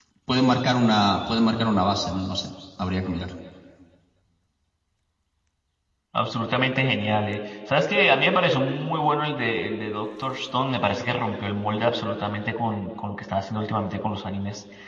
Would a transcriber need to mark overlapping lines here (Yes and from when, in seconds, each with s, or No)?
No